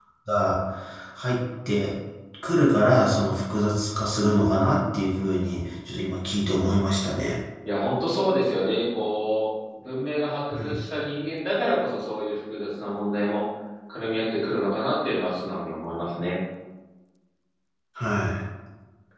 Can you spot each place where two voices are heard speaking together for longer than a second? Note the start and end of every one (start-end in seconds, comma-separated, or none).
none